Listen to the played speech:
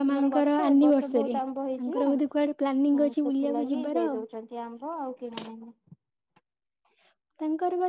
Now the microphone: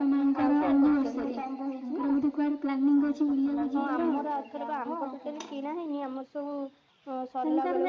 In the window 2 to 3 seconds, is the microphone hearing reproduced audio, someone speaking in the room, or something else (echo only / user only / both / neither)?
echo only